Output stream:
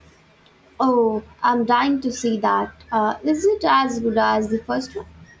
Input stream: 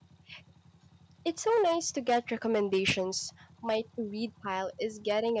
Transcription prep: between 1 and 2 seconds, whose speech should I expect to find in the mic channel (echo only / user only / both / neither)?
user only